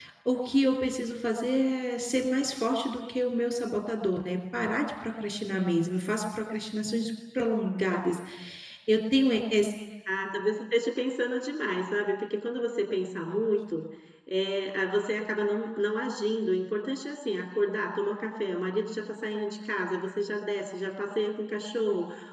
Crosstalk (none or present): none